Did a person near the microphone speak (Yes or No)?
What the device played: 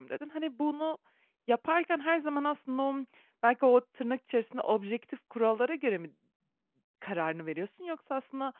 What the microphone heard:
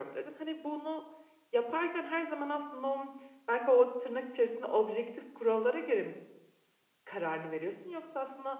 No